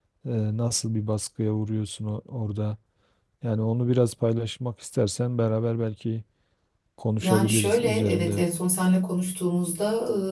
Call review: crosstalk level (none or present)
present